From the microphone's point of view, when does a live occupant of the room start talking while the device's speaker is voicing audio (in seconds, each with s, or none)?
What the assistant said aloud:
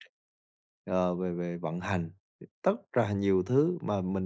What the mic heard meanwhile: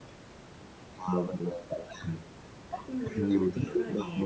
2.9 s